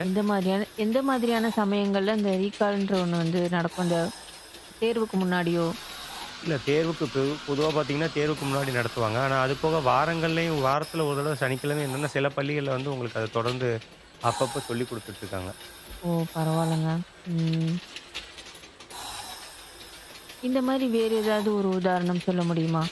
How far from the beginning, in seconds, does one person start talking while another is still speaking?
none

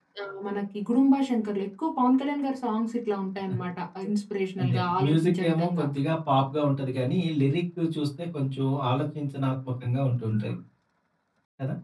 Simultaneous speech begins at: 5 s

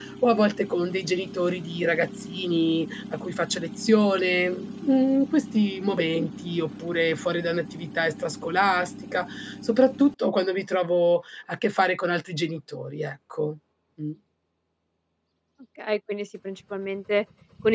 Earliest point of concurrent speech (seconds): none

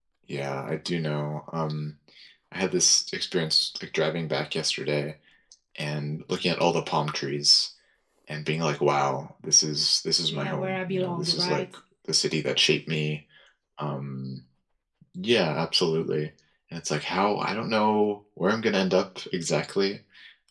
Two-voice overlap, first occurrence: 10 s

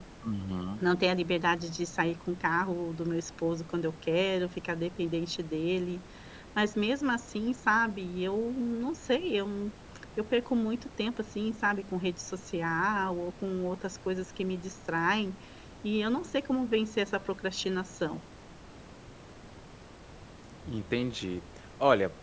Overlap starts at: none

